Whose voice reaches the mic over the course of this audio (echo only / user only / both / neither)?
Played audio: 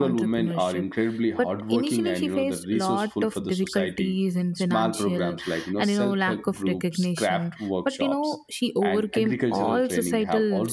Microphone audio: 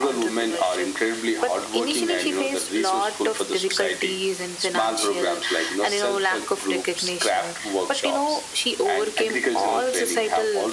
echo only